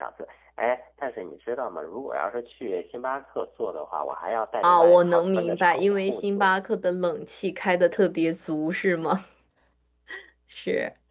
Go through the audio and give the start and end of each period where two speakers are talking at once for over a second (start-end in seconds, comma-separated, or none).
4.6-6.5